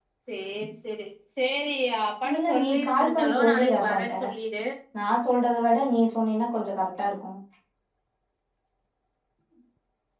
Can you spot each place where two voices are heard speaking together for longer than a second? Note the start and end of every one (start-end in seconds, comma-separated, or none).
2.3-4.1